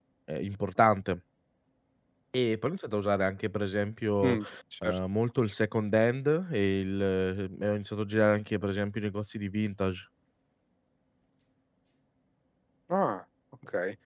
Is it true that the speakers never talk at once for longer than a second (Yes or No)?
Yes